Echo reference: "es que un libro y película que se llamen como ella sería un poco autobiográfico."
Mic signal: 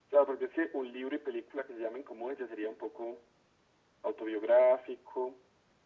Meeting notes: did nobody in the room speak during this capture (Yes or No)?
Yes